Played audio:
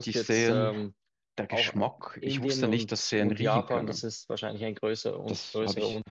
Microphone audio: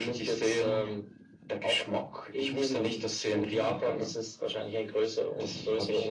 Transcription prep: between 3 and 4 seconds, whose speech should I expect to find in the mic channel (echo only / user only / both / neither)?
echo only